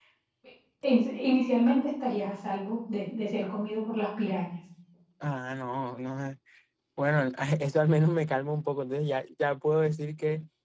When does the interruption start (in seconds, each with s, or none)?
none